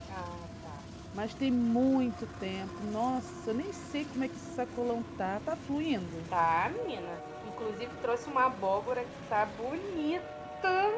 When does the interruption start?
none

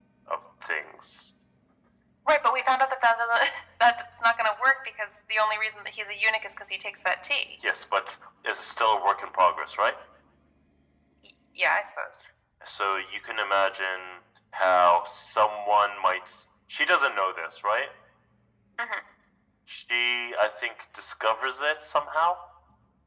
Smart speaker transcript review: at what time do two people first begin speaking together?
none

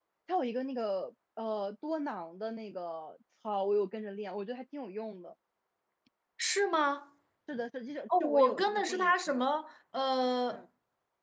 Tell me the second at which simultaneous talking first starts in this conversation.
8.2 s

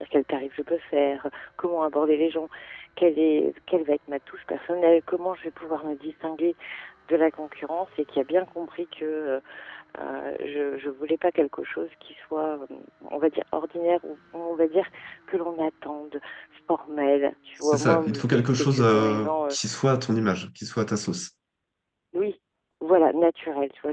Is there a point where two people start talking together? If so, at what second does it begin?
17.6 s

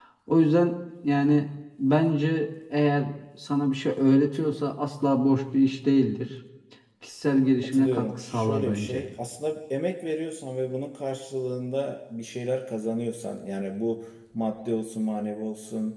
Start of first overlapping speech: 7.6 s

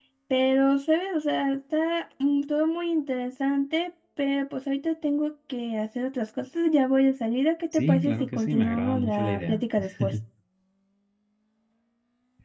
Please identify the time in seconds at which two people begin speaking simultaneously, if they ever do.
7.7 s

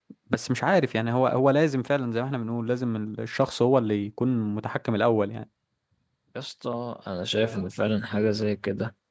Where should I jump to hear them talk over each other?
none

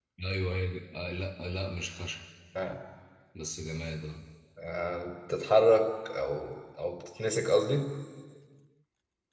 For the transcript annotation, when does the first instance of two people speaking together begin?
none

